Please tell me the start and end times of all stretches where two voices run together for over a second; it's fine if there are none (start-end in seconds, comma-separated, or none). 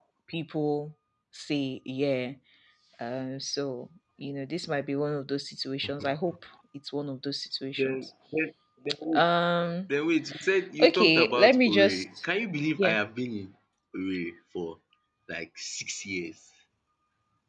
10.8-12.2